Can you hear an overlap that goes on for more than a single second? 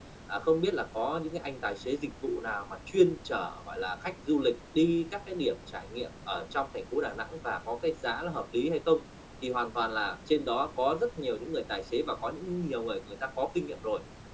No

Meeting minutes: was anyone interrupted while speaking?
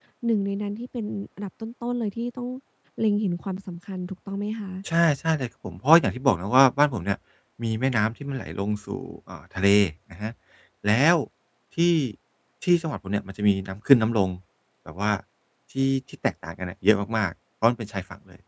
No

